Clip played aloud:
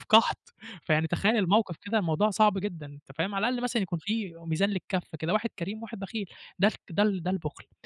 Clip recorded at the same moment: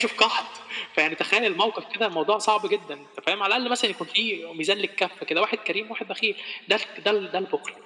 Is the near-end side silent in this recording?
Yes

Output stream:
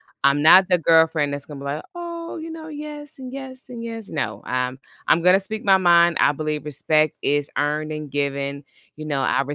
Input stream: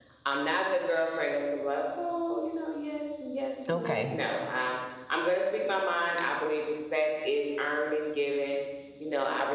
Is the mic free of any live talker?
No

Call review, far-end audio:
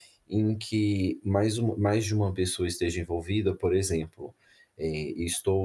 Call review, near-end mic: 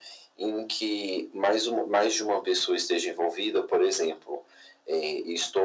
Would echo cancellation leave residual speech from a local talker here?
No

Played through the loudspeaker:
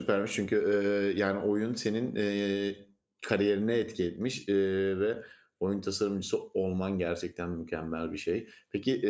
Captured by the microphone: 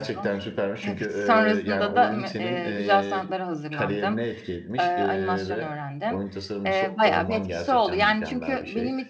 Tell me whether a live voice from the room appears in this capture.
Yes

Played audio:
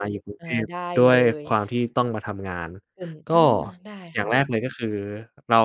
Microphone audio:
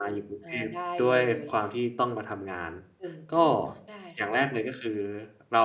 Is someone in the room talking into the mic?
No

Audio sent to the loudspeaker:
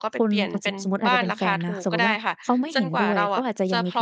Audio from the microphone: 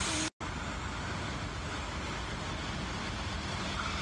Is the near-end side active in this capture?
No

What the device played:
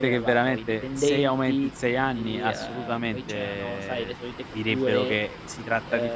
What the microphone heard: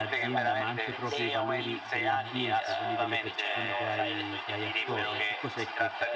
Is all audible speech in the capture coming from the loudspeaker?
No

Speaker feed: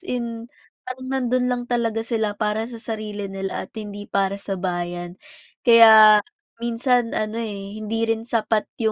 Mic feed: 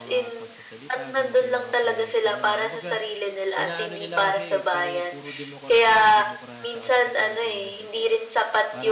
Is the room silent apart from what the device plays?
No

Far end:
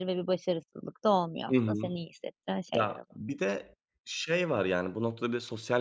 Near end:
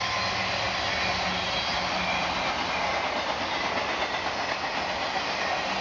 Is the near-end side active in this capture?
No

